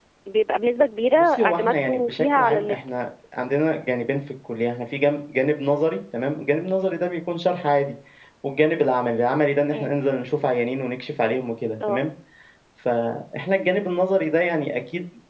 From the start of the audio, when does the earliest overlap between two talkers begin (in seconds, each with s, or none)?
1.1 s